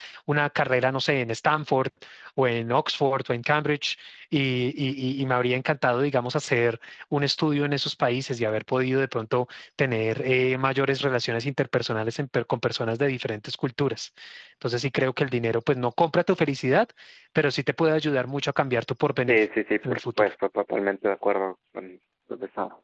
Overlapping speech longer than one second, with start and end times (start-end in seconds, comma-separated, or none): none